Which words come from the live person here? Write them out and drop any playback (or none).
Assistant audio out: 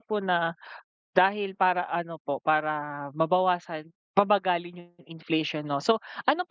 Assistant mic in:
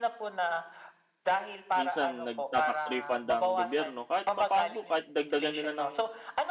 minsan nagta-tax refund ang gobyerno, kahit papaano po, kahit dagdagan nila ng